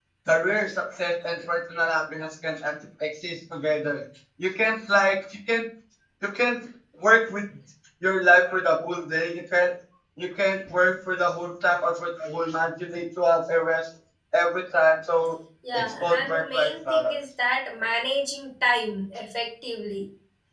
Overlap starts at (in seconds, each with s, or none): 15.6 s